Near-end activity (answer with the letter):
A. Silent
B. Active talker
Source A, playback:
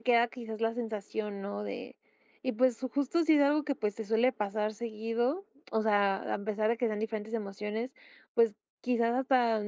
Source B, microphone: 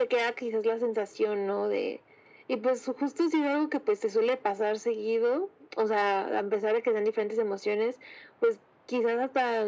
A